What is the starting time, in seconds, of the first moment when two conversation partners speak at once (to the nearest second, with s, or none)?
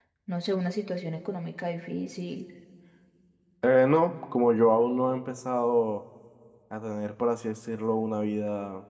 none